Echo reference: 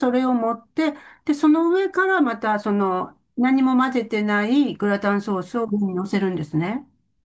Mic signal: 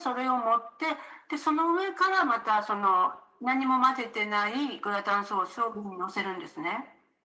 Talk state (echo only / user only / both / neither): echo only